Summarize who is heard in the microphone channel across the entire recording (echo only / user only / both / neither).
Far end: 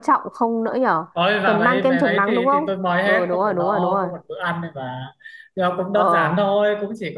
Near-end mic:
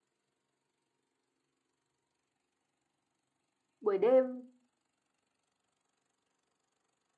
user only